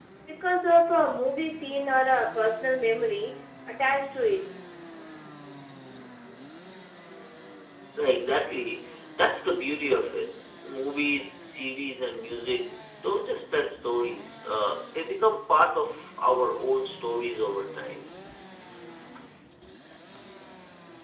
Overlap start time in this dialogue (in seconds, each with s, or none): none